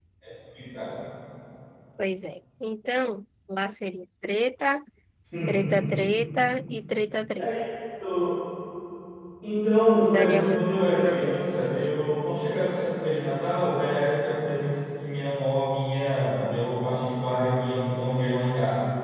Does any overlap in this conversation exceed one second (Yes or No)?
Yes